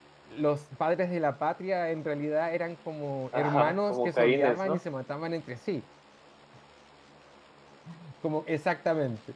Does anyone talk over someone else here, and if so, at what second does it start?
3.3 s

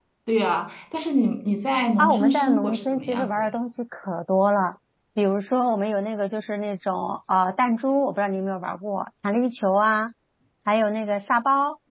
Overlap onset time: 2.0 s

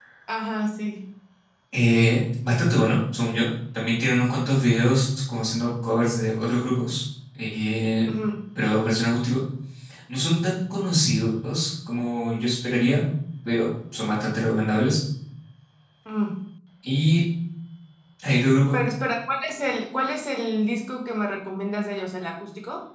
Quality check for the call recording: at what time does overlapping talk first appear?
none

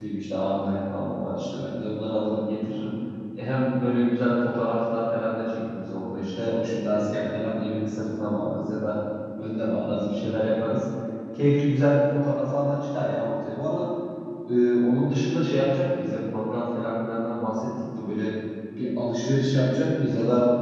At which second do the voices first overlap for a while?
none

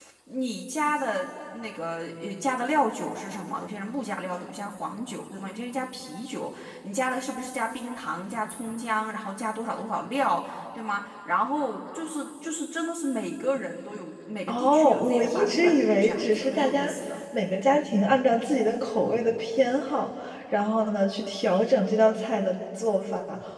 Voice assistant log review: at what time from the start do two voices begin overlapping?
14.5 s

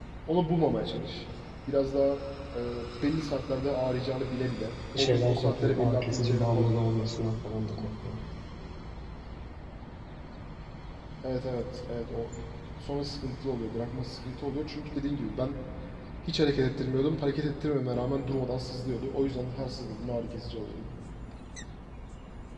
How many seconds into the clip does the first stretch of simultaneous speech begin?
4.9 s

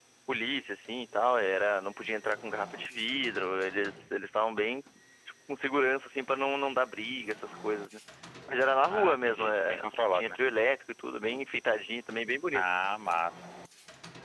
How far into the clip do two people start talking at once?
8.9 s

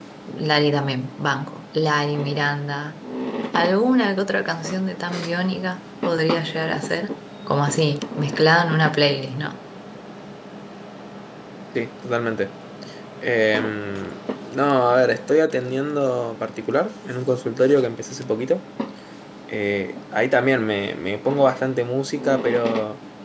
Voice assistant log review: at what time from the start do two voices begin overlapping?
none

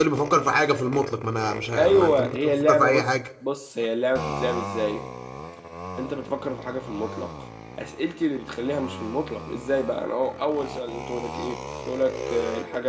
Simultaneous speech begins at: 1.8 s

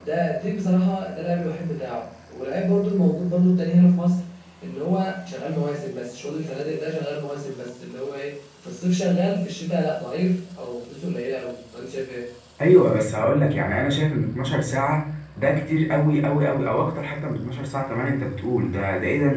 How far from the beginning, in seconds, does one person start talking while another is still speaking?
none

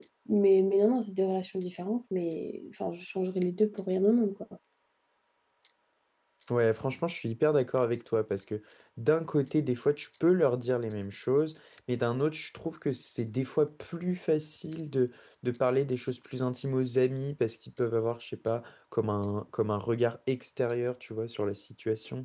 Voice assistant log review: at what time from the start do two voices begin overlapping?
none

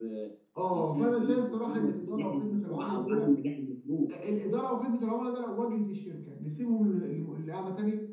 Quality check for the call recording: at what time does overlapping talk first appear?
0.7 s

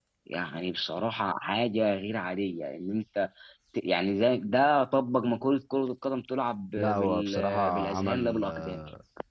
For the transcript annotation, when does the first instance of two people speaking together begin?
6.8 s

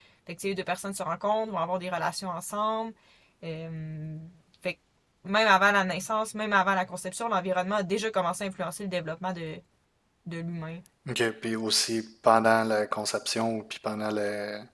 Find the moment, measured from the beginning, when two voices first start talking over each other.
none

